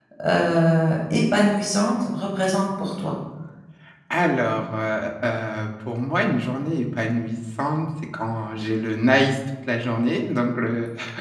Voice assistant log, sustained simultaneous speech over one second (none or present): none